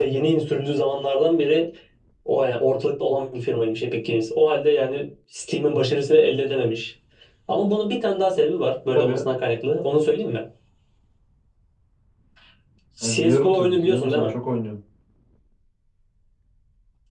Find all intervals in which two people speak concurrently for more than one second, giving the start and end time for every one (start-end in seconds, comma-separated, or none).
13.1-14.3